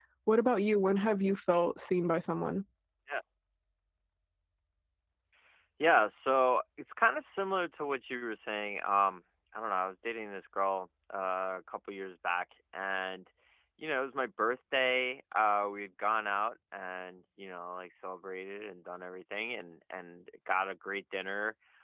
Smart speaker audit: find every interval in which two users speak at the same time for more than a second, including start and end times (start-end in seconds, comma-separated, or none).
none